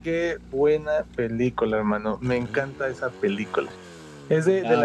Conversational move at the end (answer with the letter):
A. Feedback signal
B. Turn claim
A